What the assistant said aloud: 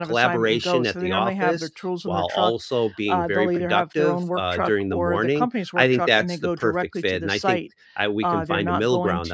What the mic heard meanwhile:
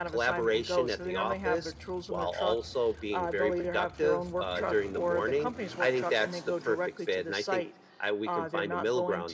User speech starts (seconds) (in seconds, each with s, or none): none